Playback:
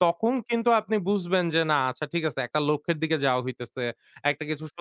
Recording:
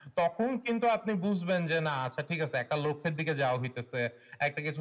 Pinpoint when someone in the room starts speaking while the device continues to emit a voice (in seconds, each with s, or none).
none